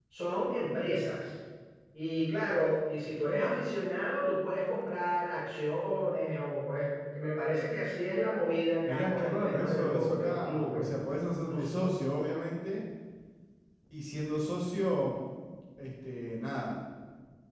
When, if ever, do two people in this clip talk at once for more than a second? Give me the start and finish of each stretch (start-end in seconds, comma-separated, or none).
8.8-10.8